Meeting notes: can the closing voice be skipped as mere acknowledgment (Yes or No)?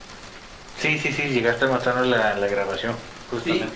No